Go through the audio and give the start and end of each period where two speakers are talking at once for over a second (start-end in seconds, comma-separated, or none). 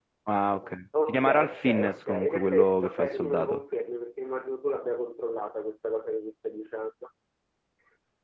1.1-3.6